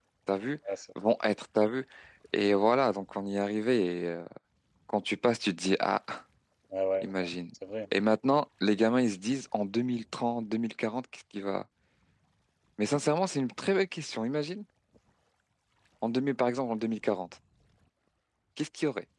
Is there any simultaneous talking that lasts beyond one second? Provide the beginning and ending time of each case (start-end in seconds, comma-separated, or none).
none